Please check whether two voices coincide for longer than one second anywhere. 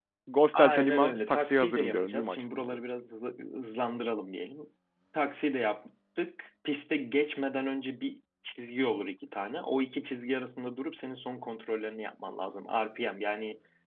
Yes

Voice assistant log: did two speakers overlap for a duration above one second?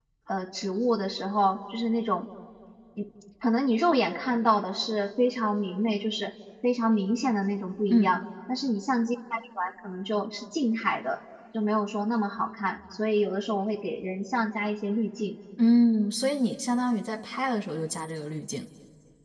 No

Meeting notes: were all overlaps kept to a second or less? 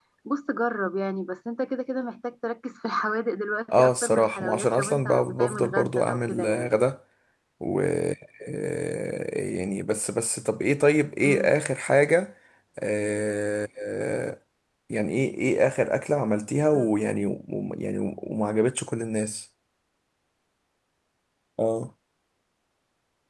No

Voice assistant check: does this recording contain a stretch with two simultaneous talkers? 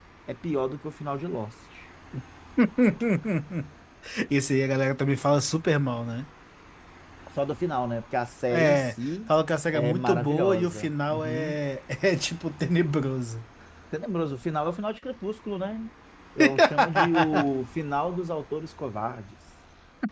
Yes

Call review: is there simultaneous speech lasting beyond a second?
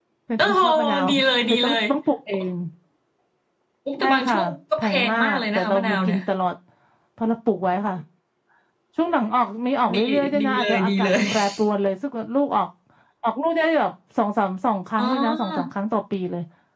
Yes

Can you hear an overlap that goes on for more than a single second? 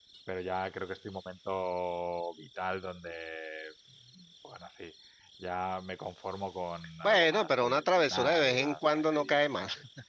Yes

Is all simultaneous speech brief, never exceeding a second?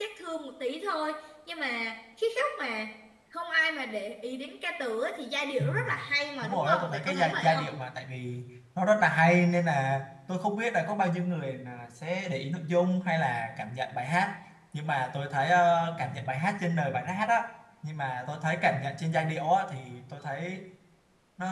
No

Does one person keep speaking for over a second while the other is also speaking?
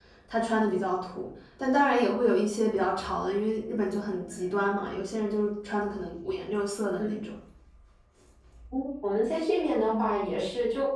No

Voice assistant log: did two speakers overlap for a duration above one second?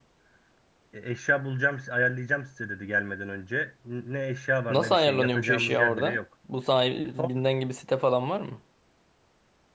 Yes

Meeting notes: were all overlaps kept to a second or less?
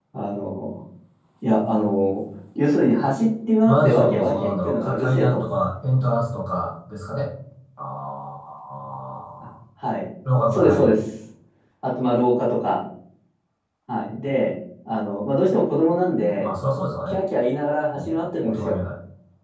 No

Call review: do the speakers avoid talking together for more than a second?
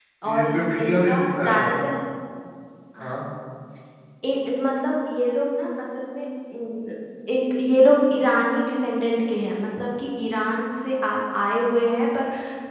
No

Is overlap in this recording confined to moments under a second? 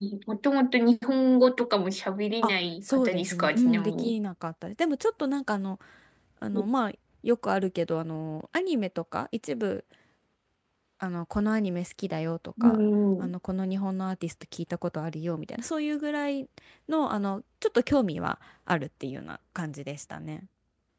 No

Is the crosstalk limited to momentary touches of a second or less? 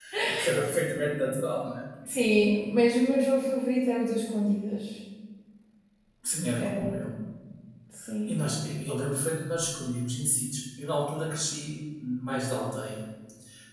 Yes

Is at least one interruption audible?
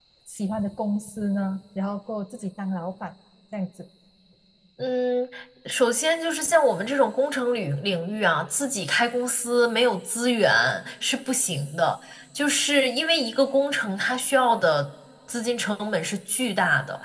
No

